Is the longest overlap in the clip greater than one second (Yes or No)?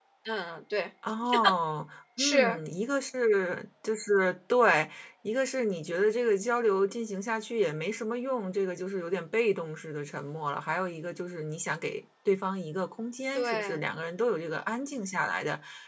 No